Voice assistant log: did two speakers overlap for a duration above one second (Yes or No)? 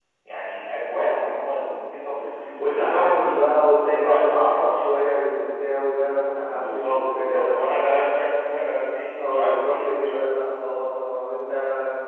Yes